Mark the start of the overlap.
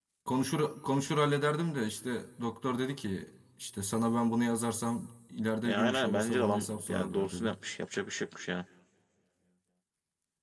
5.6 s

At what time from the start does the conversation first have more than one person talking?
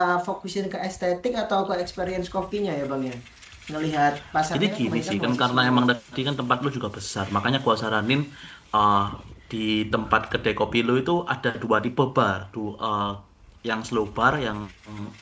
4.5 s

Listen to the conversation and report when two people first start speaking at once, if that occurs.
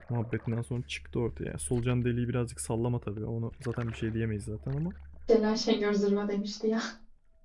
none

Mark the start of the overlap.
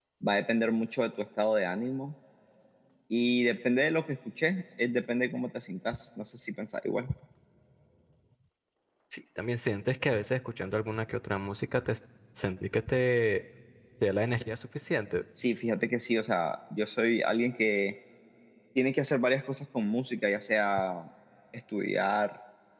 none

